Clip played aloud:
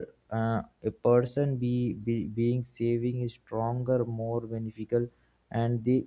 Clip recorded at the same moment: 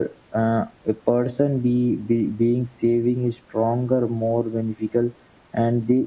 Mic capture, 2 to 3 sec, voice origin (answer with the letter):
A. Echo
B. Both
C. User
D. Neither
A